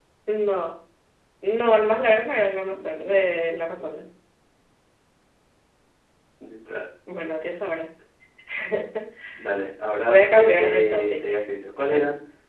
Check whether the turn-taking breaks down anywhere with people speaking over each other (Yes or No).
Yes